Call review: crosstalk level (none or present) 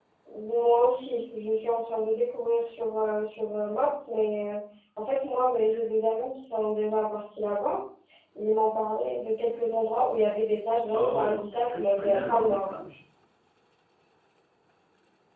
present